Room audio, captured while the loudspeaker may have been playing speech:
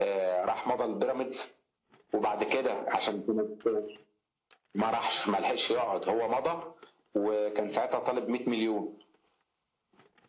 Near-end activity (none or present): none